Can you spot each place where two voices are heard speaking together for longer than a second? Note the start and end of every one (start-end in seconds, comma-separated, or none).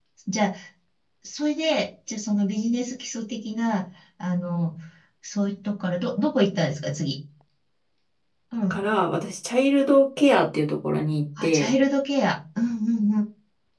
none